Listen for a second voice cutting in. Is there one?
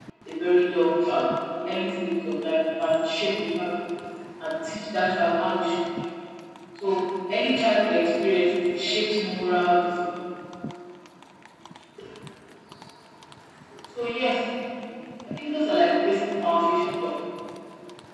No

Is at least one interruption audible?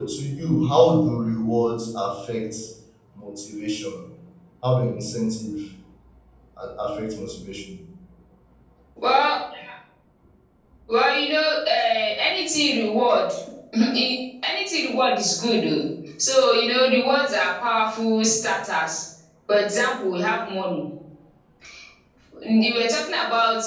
No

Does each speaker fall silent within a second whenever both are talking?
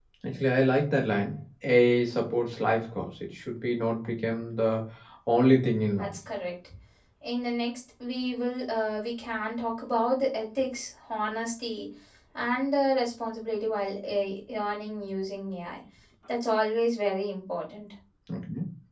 Yes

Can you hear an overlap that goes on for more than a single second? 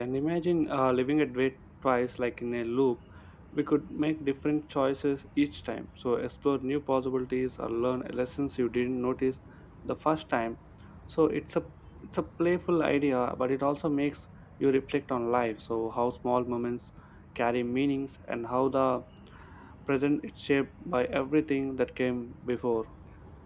No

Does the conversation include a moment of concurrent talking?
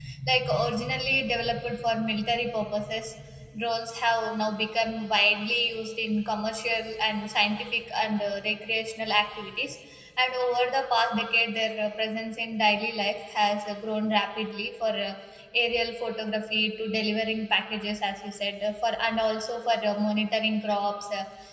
No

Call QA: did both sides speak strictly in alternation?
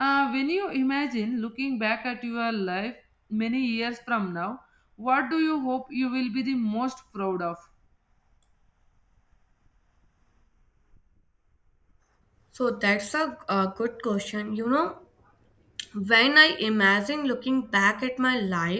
Yes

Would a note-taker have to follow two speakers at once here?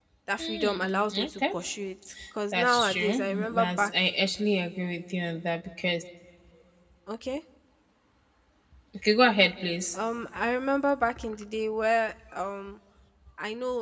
Yes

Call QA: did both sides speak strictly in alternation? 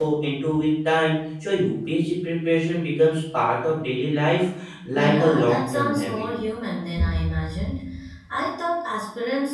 No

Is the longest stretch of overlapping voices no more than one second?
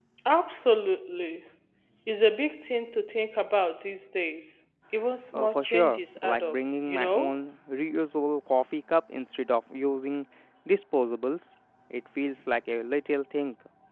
No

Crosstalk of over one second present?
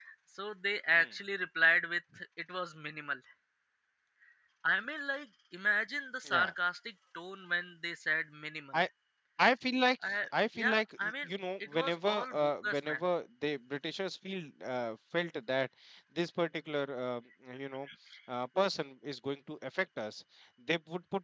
Yes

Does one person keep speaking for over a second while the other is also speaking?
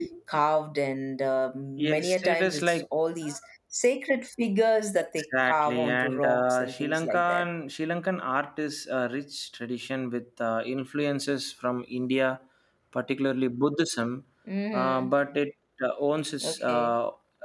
Yes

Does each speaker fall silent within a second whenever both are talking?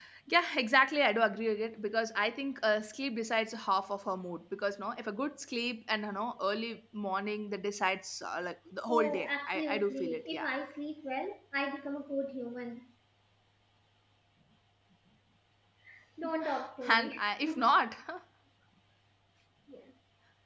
No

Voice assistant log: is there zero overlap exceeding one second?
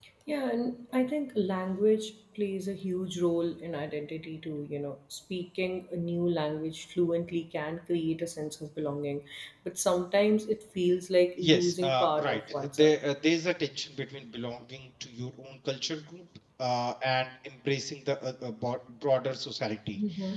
No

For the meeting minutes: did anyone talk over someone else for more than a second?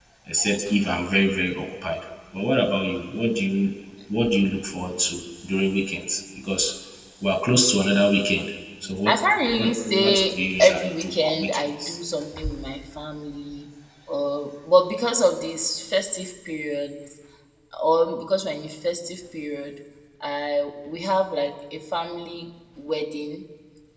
Yes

